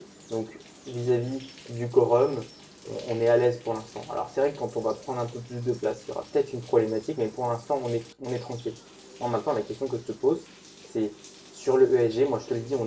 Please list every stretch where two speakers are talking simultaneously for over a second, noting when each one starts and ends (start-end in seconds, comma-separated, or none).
none